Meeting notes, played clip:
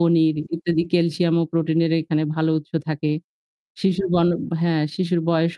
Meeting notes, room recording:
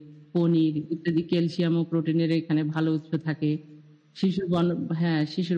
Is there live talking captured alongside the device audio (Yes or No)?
No